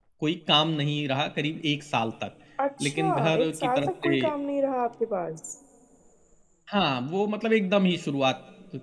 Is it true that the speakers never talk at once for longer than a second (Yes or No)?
No